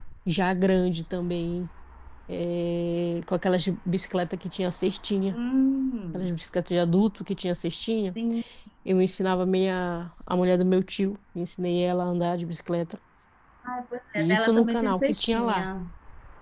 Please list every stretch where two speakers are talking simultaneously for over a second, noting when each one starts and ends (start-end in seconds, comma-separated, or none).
14.2-15.7